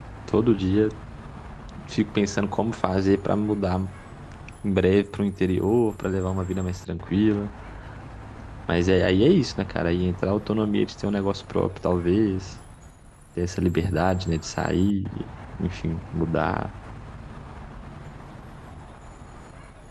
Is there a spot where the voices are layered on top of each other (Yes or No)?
No